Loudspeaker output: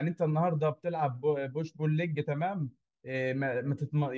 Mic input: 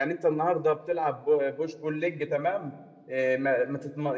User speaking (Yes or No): No